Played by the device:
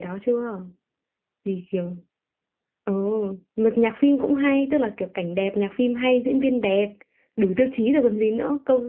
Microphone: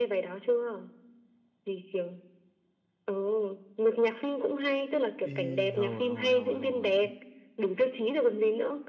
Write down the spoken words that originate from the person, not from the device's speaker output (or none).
Ý, hồi hồi hồi hồi